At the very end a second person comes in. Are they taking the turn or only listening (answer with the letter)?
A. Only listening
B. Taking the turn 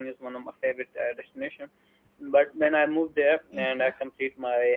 A